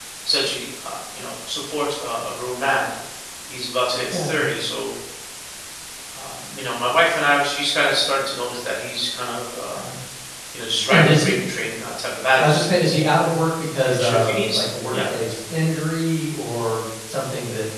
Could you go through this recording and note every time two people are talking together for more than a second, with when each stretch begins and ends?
13.8-15.1

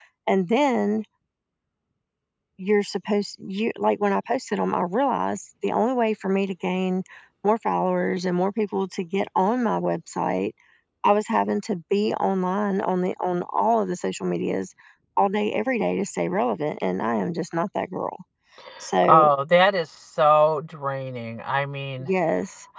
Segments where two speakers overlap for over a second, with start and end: none

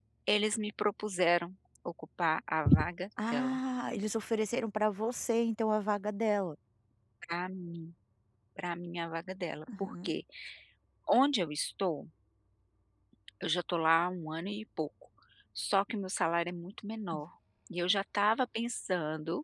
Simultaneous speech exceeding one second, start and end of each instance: none

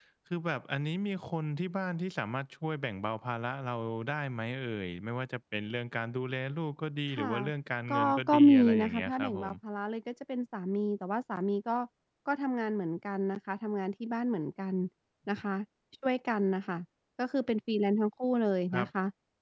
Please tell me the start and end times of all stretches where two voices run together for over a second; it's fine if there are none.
7.9-9.5

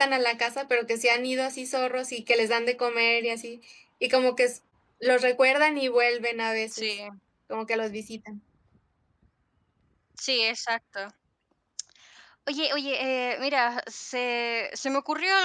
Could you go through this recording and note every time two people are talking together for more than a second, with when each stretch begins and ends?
none

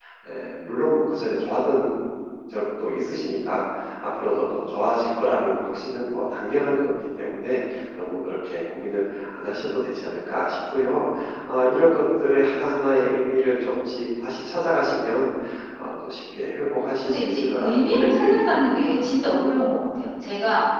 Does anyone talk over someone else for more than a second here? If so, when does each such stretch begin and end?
17.0-18.9

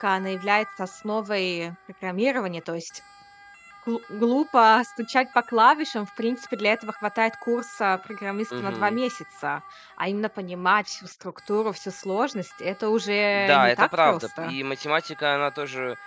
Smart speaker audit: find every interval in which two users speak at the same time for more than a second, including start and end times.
13.3-14.5

